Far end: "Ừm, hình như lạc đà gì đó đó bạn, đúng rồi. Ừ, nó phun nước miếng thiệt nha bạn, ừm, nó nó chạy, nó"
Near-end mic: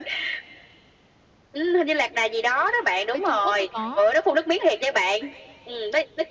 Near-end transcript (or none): bên Trung Quốc hay có.